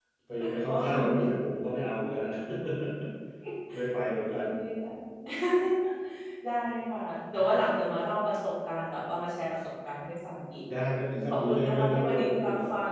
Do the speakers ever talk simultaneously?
Yes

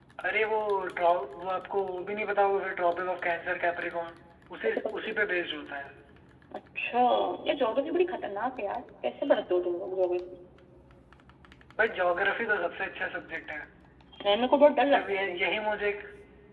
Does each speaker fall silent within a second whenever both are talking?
Yes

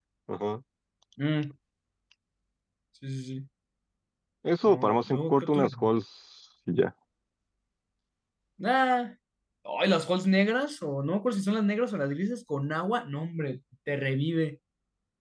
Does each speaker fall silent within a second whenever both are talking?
No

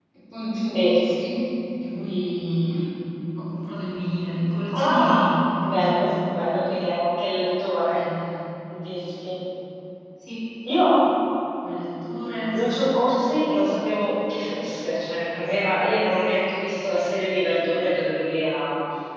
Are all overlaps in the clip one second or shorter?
No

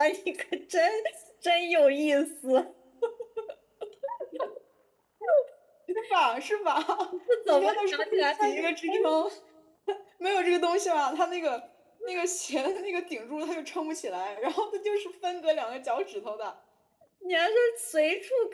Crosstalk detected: Yes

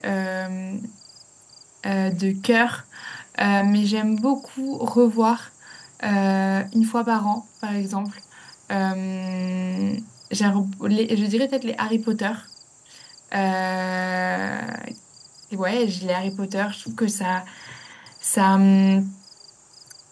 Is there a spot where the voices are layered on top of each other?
No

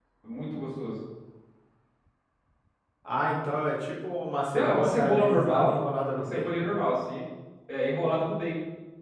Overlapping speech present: Yes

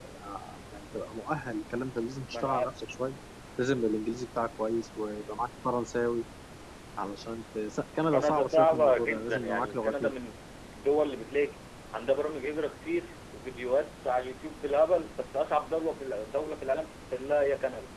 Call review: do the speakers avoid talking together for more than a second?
No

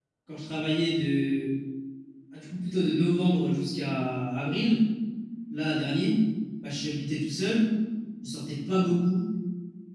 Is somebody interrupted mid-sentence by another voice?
No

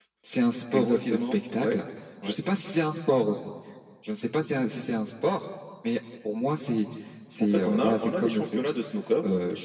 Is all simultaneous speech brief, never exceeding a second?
No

